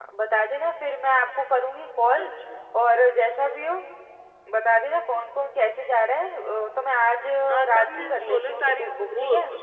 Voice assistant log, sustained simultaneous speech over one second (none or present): present